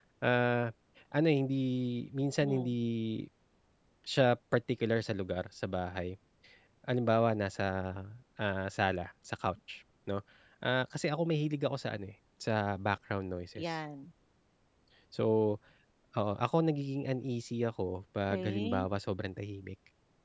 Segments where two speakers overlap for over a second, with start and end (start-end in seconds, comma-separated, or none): none